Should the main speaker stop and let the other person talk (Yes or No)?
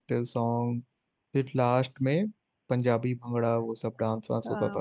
Yes